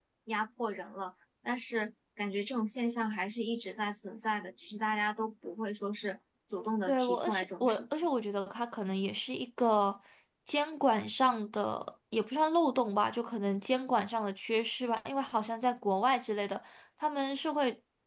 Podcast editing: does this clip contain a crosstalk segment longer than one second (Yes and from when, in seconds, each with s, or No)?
Yes, from 6.9 s